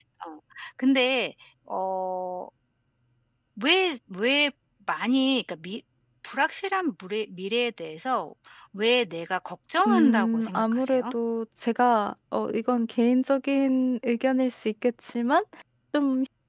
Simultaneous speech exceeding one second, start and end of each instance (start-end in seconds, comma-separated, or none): 9.8-11.1